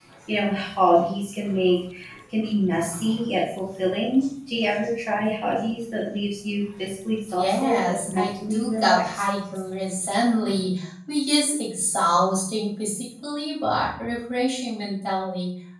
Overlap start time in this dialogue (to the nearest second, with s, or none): 7 s